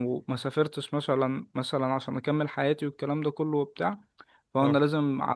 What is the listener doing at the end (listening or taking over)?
listening